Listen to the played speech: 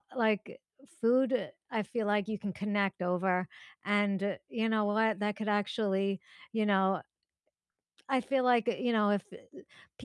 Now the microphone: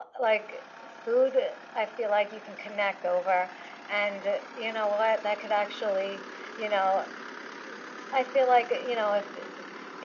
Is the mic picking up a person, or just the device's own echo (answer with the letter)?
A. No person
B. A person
A